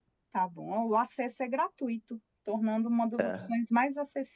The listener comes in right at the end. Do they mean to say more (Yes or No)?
No